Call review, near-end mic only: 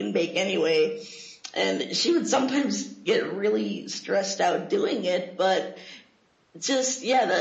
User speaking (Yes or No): No